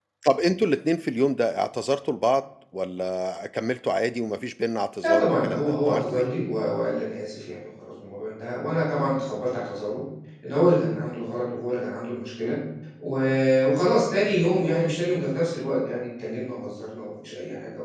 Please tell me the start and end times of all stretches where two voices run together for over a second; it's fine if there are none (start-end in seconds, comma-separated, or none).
5.0-6.3